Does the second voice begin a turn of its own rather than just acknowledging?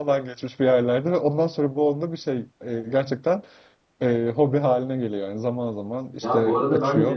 Yes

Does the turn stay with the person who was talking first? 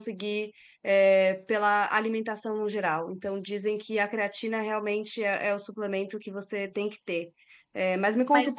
Yes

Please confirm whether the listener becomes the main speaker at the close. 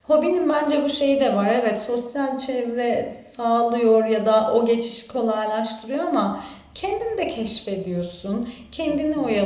No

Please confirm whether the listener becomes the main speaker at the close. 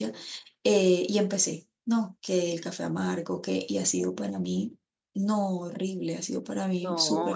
Yes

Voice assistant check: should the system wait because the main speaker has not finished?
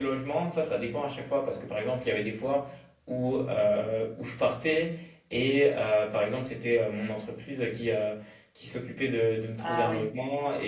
Yes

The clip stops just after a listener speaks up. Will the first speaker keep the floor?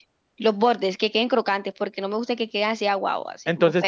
No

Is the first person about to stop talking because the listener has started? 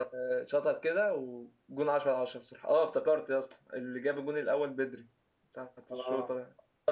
No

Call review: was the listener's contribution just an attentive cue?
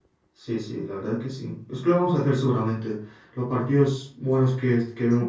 Yes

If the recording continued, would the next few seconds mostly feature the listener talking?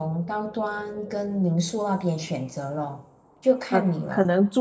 Yes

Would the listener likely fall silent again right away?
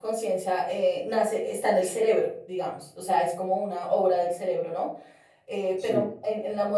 Yes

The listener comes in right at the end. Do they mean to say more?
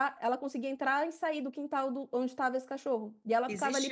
Yes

